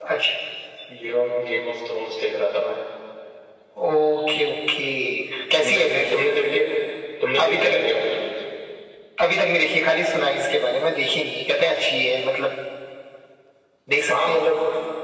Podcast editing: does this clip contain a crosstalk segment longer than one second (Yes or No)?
No